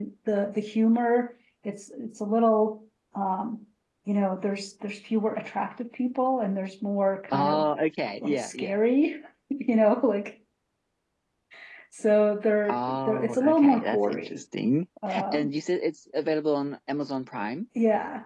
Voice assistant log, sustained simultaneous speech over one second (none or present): present